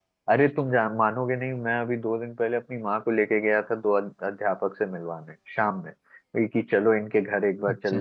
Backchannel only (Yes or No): Yes